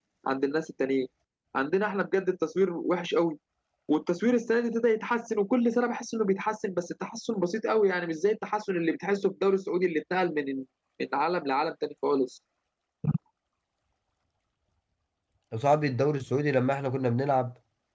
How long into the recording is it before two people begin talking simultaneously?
none

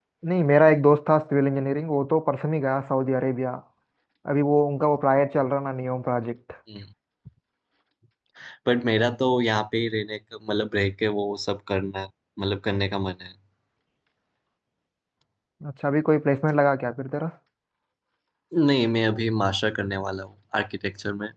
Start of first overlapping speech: none

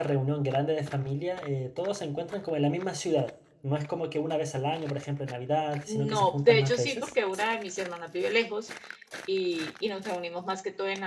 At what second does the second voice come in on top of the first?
5.9 s

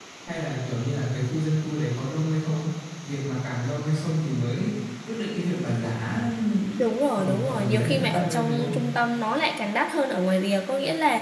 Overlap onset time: 7.2 s

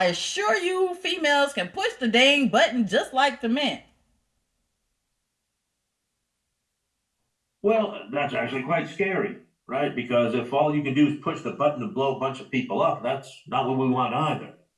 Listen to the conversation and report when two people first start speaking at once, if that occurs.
none

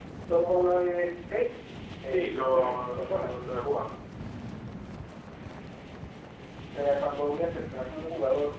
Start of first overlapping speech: 2.0 s

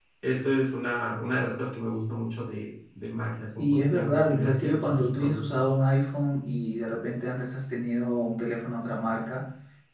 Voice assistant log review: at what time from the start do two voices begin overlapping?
3.6 s

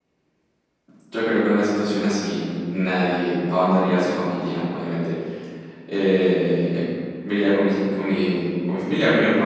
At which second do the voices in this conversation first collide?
none

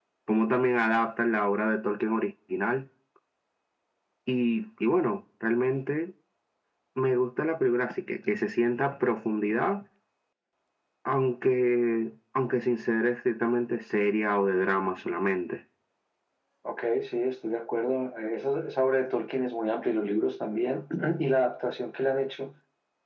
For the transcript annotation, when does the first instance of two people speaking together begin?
none

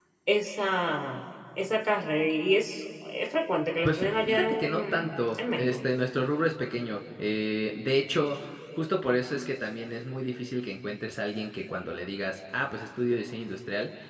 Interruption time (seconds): 3.8 s

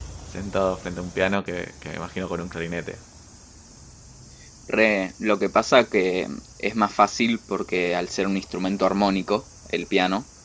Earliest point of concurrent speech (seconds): none

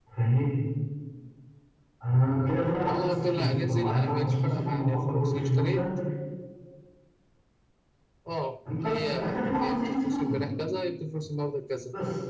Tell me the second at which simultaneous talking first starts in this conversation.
2.8 s

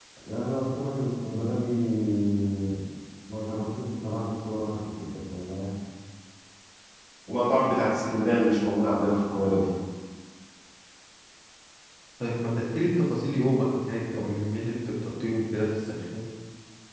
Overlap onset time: none

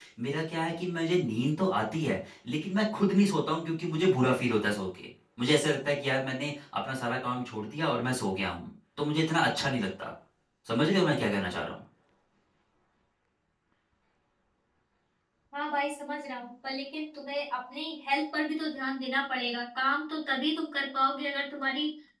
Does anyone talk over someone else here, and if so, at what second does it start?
none

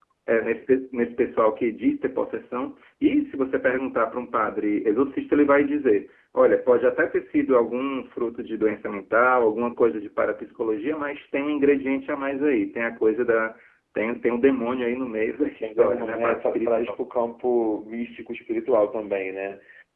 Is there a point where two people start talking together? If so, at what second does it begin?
15.6 s

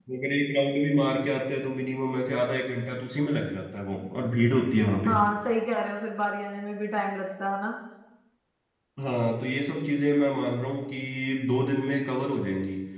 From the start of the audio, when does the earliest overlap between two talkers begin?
none

